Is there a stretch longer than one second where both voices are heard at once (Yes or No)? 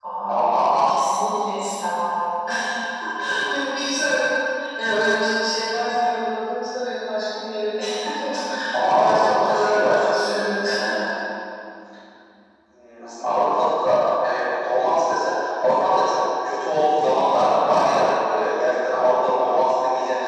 Yes